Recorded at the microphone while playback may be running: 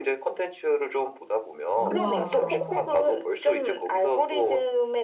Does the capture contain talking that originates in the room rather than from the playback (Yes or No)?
Yes